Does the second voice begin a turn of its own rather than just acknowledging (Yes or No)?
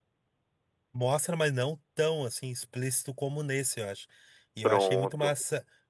No